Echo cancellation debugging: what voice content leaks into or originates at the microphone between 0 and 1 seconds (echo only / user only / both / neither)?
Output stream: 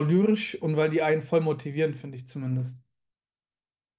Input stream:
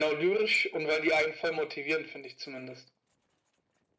echo only